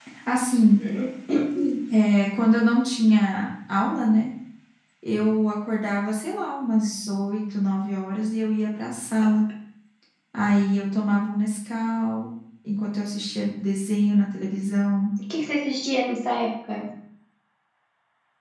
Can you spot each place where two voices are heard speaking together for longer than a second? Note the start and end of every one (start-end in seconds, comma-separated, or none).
none